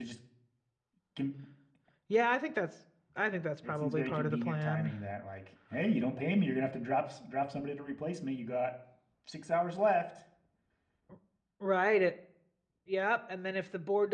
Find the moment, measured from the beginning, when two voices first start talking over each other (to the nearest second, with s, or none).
4 s